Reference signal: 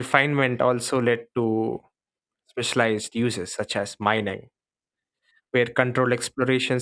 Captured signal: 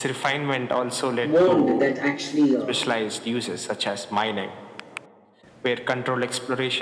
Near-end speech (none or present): present